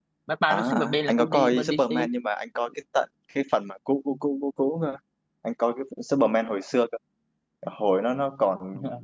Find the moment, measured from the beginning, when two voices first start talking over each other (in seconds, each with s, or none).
0.5 s